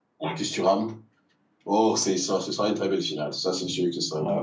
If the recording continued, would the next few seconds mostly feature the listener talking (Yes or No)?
Yes